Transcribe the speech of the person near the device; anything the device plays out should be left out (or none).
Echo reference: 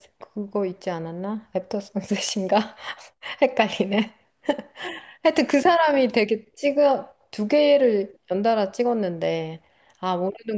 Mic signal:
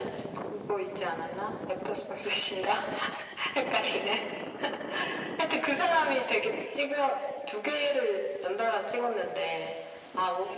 none